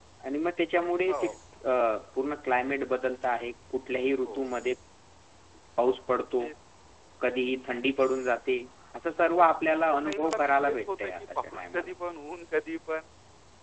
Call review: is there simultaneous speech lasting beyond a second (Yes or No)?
Yes